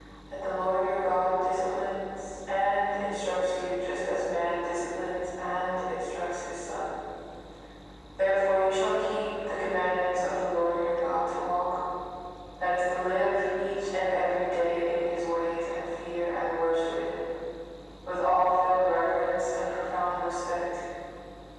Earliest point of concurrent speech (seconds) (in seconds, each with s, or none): none